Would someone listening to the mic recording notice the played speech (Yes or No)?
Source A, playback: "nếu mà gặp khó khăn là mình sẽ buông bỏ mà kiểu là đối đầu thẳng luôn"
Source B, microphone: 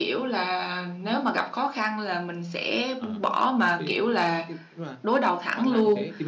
Yes